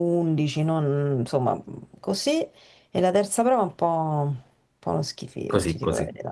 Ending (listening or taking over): taking over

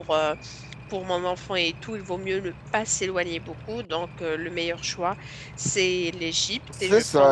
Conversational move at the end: taking over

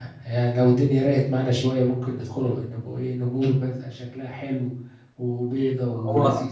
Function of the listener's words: taking over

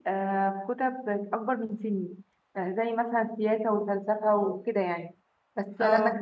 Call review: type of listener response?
listening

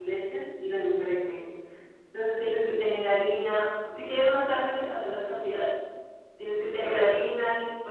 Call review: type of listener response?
listening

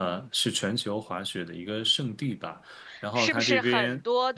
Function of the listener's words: taking over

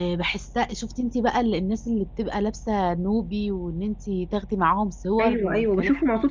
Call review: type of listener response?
taking over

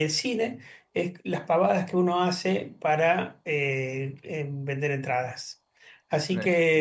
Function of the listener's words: listening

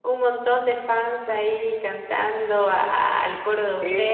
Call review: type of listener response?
taking over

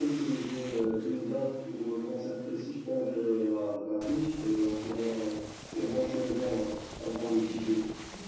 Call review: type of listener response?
taking over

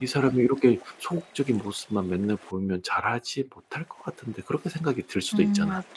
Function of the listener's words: taking over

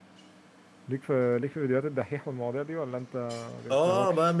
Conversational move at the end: taking over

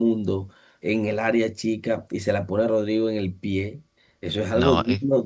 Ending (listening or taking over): listening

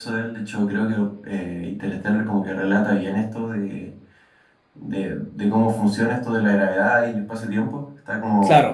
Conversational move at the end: listening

